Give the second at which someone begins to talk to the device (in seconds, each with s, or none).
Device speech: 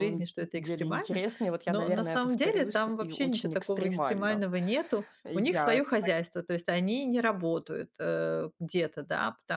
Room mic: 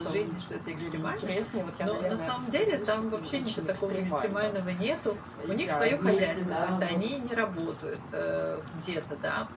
5.8 s